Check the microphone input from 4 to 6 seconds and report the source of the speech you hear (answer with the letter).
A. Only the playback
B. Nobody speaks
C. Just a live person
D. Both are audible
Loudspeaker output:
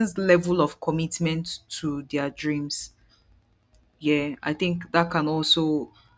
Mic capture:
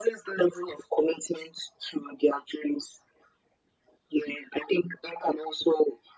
A